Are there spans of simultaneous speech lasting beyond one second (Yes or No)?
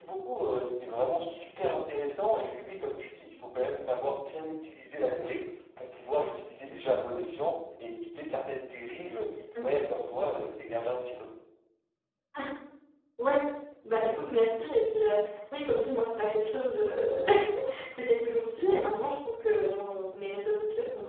No